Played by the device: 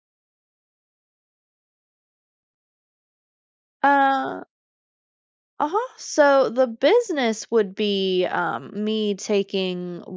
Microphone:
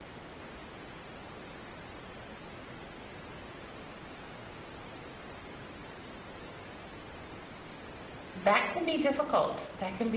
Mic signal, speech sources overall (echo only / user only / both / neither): user only